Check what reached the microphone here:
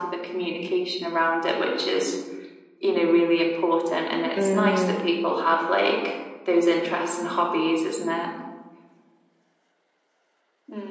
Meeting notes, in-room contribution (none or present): present